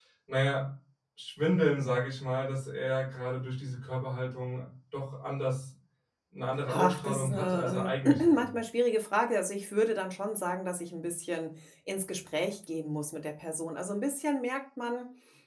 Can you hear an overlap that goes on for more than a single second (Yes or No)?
Yes